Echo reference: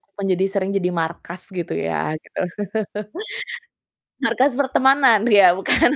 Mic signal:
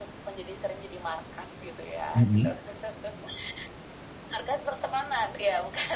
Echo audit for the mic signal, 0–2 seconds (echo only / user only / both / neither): echo only